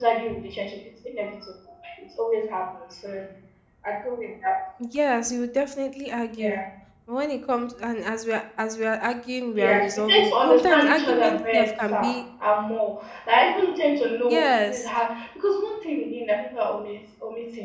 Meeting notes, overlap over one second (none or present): present